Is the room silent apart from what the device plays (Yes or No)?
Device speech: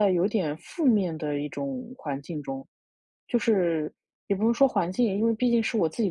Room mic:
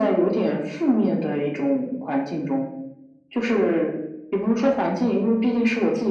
Yes